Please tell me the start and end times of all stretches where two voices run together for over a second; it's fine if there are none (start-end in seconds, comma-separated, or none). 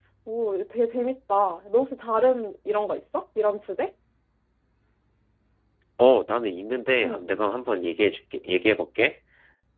none